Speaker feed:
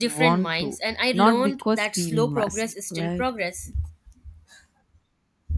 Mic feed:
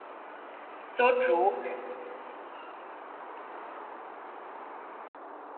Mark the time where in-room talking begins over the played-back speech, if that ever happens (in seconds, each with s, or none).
0.8 s